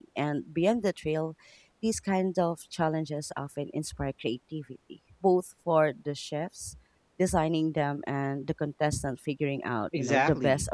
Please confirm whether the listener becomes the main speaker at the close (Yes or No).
Yes